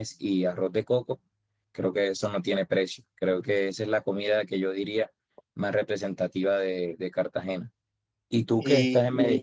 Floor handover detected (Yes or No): No